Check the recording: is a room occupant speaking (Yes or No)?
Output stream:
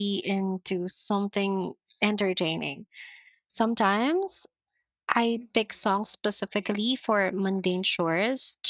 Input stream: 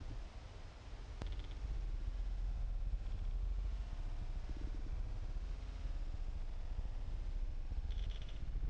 No